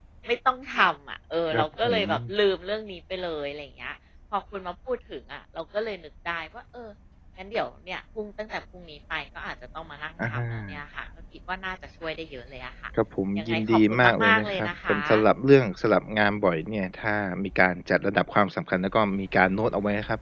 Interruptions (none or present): present